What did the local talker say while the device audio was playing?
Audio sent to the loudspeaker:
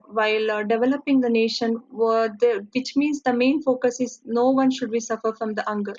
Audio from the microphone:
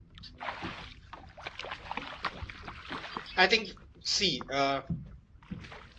I think, see, uh,

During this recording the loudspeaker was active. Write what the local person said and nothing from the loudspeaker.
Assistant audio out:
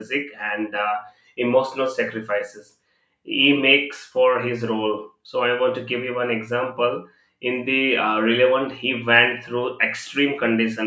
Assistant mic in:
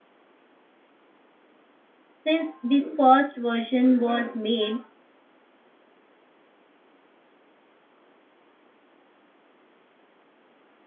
since the first version was made,

